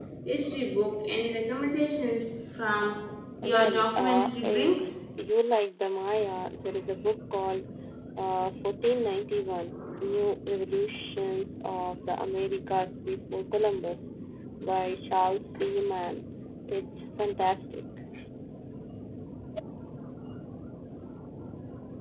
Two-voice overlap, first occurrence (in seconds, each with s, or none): 3.4 s